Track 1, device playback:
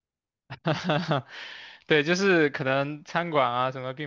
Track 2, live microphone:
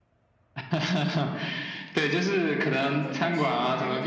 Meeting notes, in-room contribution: present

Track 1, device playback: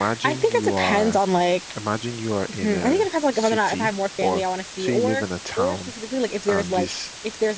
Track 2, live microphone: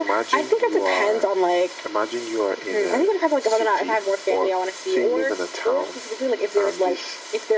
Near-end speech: none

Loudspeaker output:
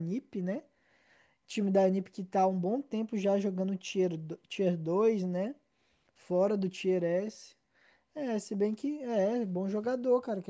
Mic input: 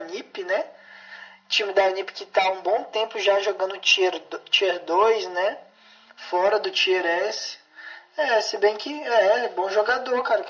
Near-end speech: none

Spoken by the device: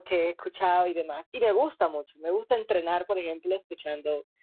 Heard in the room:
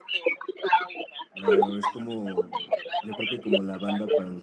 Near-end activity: present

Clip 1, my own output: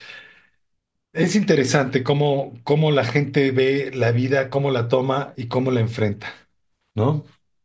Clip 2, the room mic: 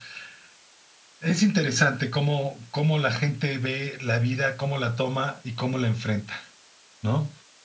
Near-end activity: none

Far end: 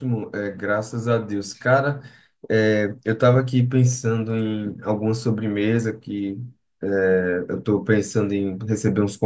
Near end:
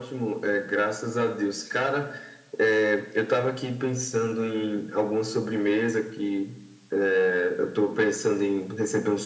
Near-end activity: none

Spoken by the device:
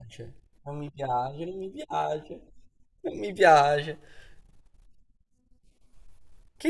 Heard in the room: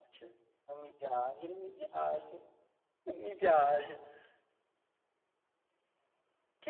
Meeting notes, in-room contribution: none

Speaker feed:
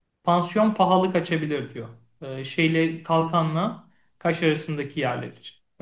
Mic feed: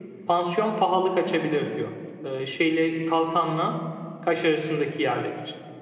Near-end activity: none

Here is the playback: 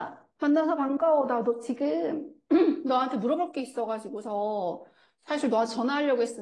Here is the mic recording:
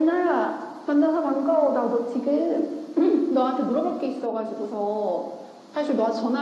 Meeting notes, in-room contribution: none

